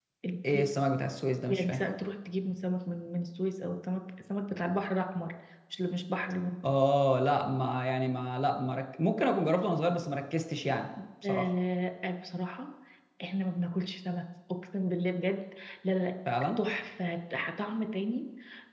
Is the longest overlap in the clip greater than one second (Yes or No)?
No